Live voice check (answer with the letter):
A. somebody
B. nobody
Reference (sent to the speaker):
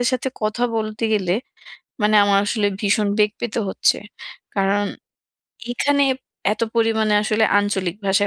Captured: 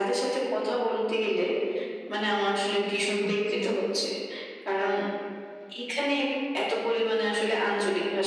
A